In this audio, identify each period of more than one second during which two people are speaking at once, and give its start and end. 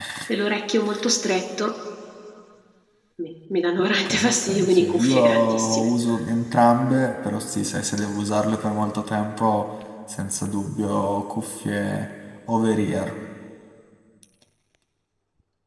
4.0-5.9

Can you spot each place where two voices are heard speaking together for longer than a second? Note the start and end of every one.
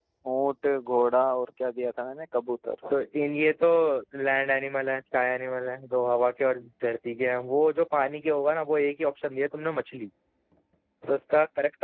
none

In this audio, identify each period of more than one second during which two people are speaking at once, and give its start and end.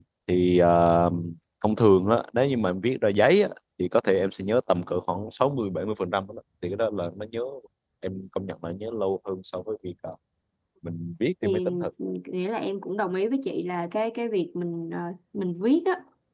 none

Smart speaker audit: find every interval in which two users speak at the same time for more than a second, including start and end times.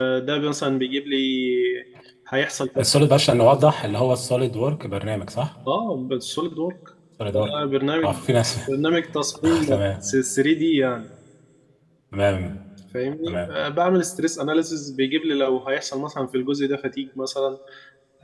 none

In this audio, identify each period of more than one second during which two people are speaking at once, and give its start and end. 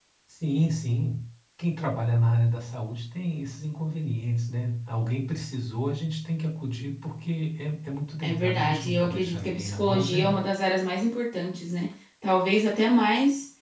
8.2-10.4

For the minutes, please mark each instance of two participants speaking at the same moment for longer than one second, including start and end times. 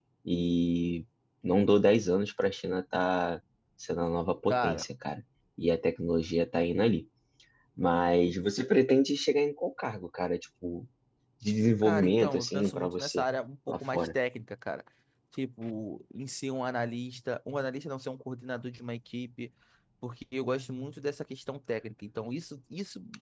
11.8-13.2

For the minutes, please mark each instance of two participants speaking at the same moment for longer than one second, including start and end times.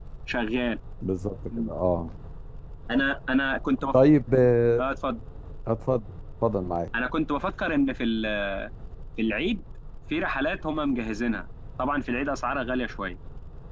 none

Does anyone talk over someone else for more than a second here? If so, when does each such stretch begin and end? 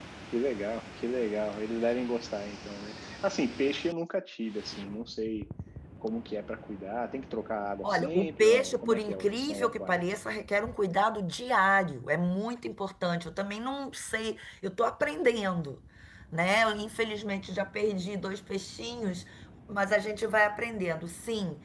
7.8-10.0

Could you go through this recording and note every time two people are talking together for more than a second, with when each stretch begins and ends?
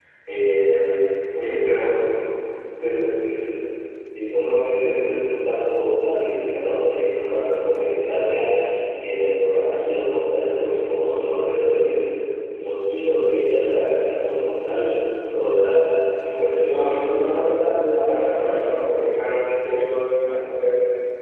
16.6-18.9

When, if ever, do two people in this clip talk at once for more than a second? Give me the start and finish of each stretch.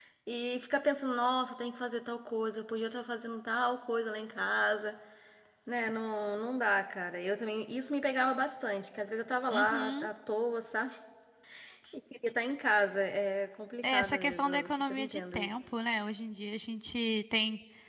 13.8-15.5

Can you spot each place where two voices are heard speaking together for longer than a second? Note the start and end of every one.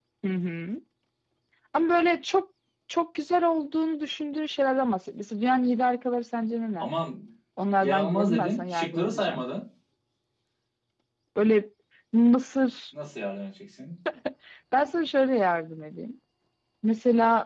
7.8-9.4

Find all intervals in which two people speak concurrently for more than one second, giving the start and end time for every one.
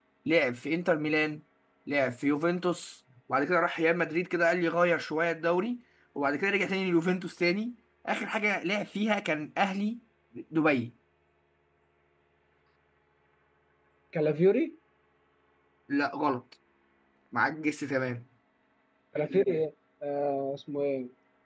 none

